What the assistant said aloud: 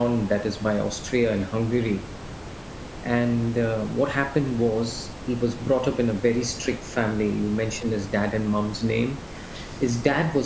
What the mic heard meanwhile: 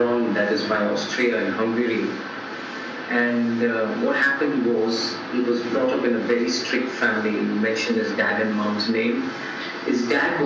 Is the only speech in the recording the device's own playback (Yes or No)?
Yes